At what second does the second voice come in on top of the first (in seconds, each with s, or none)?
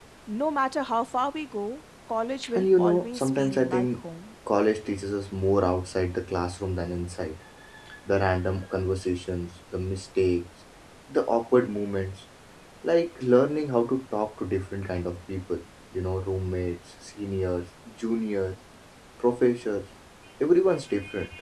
2.4 s